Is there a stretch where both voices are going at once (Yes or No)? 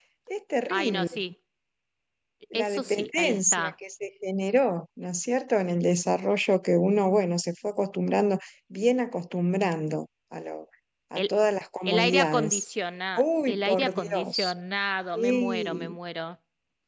Yes